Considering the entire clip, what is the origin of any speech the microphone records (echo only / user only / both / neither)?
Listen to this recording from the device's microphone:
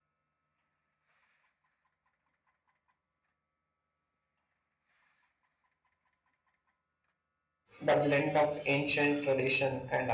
user only